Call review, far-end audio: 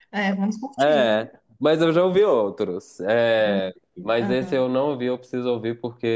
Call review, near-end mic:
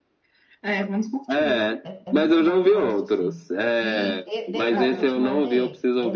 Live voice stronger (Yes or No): No